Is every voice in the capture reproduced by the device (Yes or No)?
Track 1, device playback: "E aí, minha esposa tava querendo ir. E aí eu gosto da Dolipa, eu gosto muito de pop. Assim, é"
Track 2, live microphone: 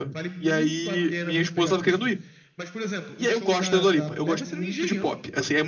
No